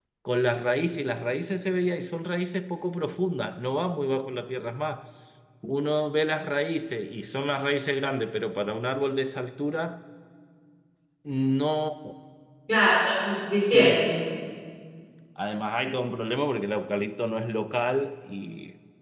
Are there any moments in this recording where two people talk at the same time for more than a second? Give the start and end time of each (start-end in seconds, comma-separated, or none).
none